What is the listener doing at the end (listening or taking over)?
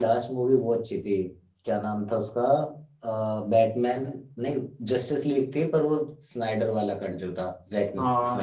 taking over